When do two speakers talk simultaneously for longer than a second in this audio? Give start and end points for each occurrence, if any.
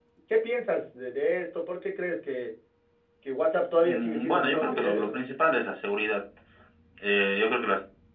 3.8-5.2

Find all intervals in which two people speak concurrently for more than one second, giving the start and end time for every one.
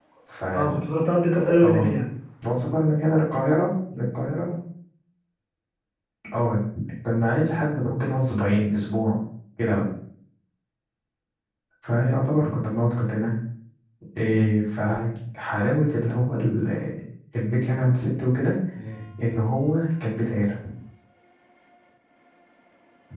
none

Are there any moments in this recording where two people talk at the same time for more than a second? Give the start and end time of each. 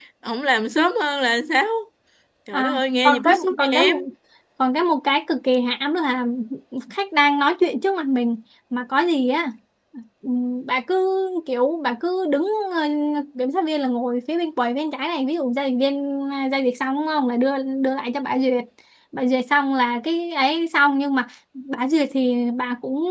2.5-4.0

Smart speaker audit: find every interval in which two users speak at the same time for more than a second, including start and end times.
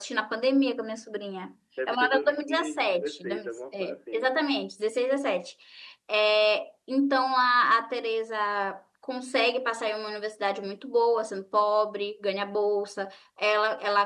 1.9-4.4

